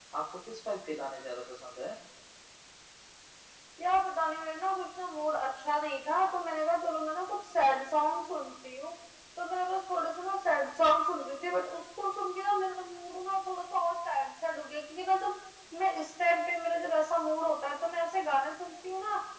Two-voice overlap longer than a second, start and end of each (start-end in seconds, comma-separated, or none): none